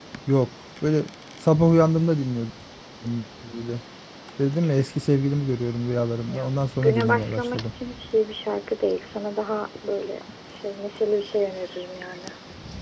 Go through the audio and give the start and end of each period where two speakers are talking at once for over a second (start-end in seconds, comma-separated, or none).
6.2-7.7